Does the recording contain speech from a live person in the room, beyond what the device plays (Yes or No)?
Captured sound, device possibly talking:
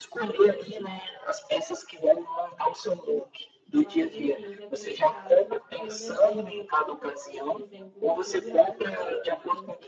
Yes